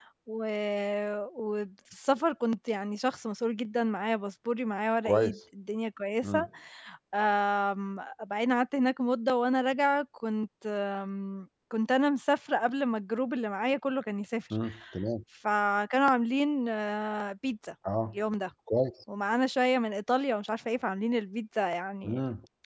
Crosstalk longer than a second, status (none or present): none